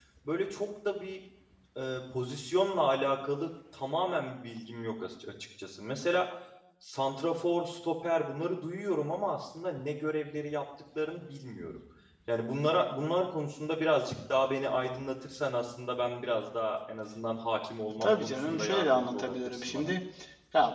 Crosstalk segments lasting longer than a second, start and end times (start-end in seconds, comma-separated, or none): 18.0-19.9